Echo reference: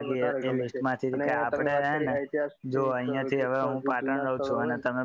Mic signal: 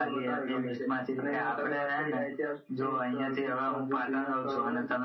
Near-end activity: none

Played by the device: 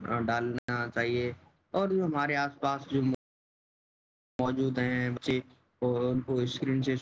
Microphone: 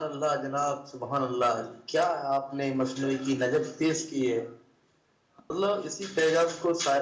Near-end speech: present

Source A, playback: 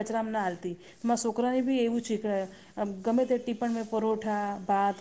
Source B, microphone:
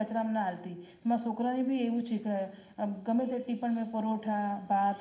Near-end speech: none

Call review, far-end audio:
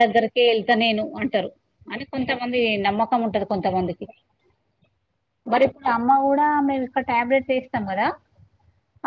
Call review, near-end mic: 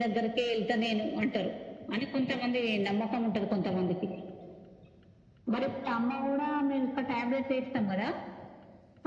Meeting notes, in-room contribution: none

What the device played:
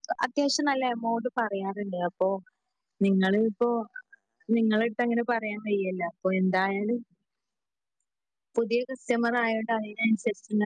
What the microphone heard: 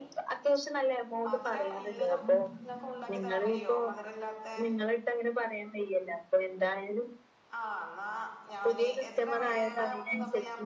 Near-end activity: present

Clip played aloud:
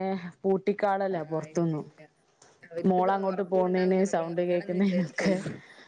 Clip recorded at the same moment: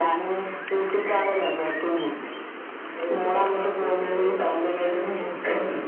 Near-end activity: none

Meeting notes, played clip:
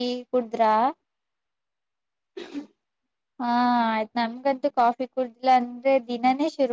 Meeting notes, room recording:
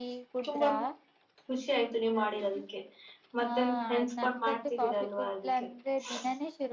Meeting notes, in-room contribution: present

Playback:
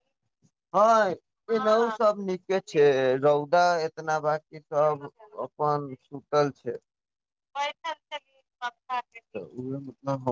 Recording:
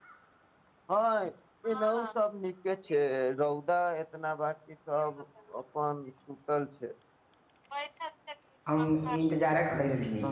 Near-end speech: present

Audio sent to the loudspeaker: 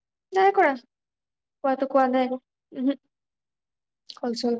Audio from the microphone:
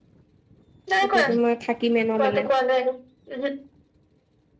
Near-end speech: present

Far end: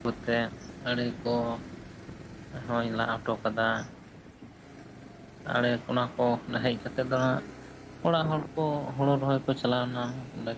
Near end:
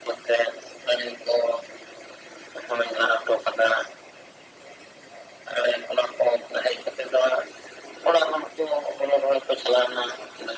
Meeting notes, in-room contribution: none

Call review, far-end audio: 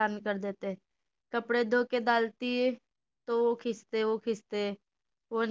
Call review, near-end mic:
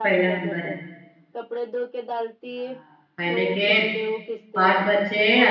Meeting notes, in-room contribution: present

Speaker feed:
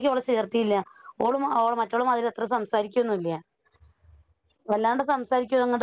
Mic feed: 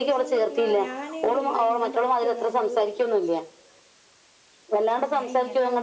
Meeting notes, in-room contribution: present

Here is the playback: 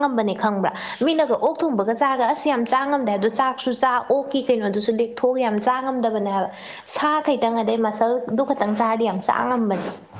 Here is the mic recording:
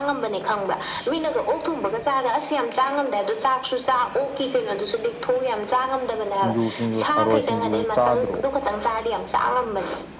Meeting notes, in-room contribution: present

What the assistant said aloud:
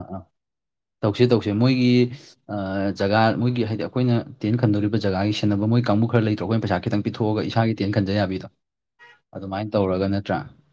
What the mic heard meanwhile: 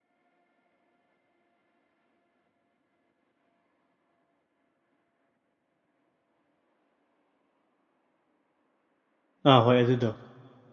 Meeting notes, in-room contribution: present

